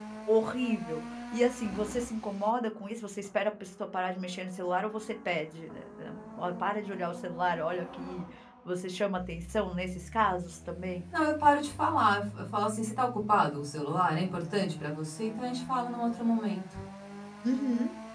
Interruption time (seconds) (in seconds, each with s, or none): none